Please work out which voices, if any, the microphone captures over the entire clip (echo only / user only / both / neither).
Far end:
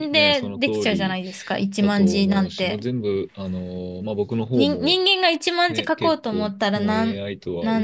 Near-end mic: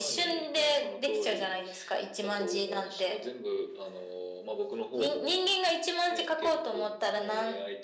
echo only